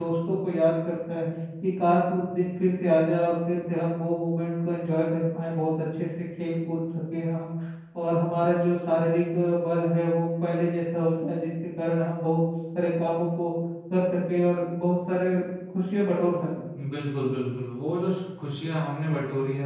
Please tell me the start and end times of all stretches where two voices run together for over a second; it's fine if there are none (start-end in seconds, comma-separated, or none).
none